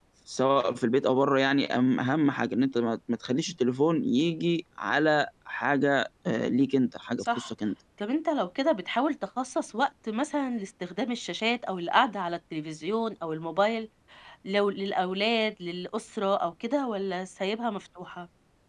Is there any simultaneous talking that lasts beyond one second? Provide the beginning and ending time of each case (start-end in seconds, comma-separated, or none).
none